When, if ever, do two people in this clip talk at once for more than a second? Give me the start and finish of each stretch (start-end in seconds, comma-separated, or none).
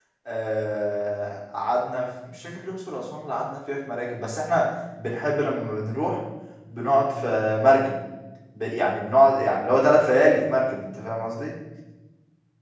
none